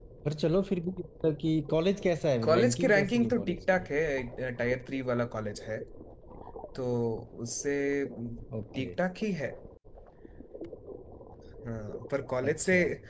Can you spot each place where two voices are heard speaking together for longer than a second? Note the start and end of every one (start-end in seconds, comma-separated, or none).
2.4-3.9